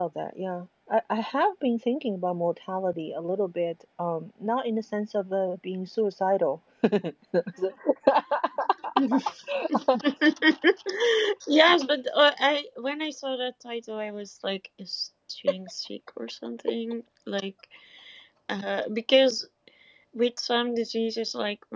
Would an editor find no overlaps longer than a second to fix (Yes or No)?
Yes